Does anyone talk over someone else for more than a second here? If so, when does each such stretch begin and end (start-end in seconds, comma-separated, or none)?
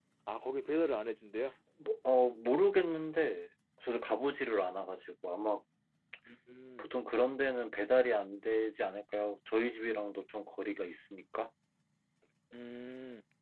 none